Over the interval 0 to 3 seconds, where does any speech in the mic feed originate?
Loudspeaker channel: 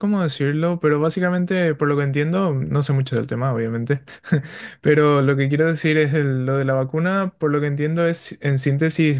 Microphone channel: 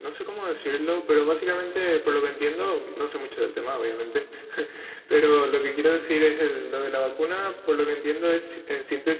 echo only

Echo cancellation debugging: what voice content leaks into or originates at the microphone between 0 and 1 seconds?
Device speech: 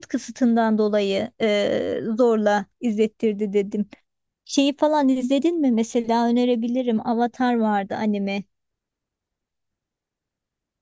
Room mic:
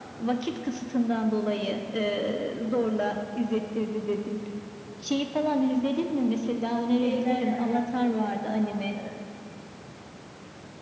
echo only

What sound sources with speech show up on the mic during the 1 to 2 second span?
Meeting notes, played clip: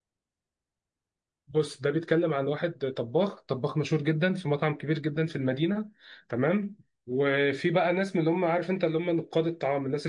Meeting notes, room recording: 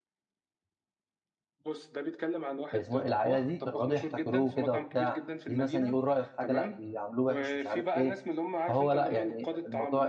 echo only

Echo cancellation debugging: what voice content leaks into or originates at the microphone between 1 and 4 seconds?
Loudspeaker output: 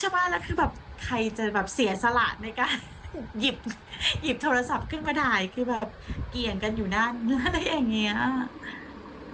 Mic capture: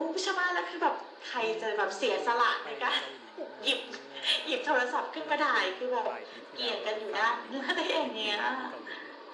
both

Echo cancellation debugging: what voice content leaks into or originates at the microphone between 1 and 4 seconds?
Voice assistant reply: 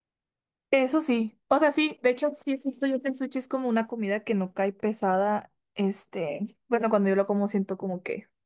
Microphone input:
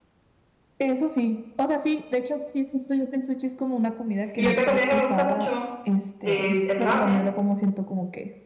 echo only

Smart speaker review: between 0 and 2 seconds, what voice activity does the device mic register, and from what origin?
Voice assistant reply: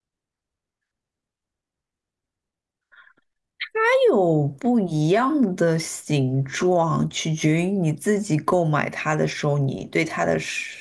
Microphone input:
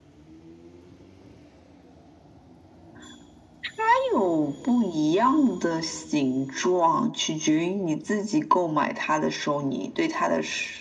neither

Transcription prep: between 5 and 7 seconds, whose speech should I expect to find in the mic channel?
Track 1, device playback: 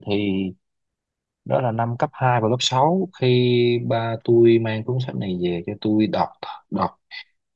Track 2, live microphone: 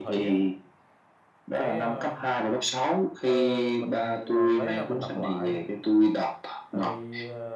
both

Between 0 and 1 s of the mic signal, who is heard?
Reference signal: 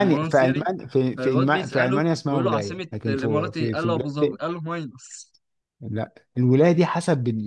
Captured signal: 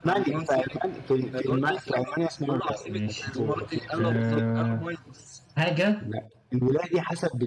echo only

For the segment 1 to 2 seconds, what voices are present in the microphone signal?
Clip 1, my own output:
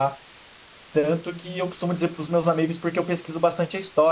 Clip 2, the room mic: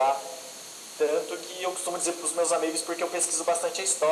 echo only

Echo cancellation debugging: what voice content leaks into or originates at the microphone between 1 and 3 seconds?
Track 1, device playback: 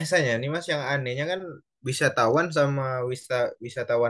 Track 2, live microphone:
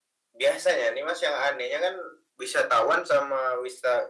echo only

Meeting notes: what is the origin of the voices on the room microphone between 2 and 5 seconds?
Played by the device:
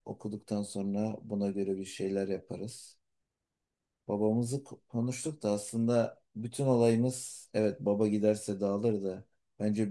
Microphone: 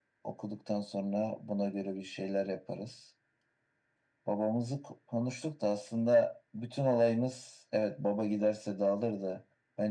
echo only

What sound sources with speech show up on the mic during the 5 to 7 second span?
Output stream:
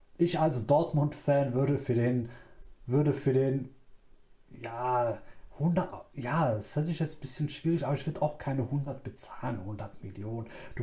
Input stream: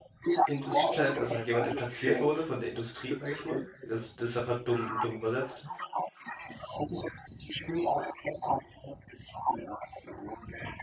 both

